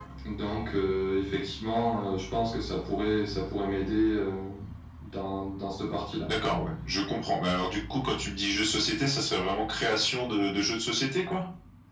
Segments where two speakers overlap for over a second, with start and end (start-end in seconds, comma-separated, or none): none